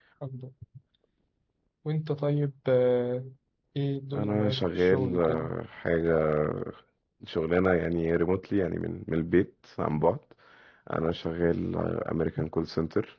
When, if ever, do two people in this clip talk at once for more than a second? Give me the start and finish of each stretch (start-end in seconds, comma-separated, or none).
4.1-5.5